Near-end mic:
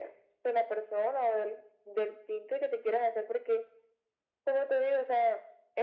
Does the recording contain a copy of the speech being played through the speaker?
Yes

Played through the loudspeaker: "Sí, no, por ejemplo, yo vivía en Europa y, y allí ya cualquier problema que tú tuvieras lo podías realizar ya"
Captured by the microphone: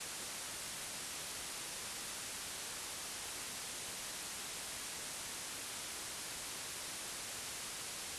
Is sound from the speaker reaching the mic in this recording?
No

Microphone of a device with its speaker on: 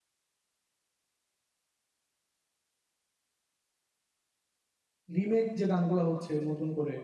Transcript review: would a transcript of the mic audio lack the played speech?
Yes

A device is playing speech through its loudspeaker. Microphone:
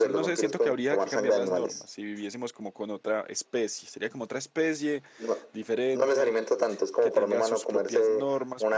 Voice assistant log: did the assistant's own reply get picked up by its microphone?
Yes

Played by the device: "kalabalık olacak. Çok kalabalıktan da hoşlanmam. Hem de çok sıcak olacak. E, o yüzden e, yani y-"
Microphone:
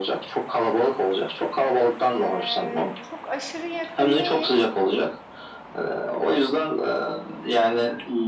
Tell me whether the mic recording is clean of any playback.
No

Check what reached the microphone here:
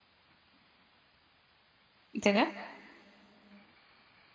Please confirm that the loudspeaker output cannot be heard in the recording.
Yes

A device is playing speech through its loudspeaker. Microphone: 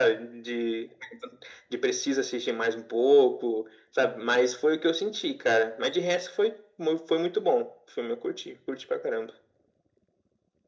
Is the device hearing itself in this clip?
Yes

